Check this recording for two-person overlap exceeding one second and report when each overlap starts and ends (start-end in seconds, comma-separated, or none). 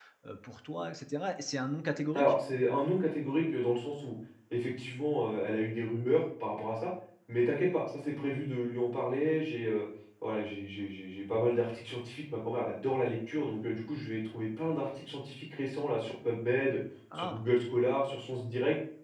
none